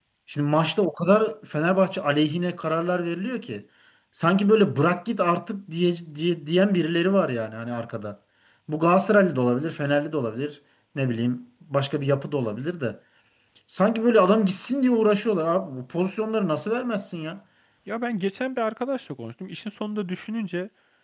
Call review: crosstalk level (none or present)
none